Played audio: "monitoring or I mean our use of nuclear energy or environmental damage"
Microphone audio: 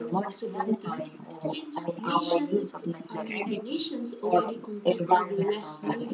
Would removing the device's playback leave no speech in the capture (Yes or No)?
No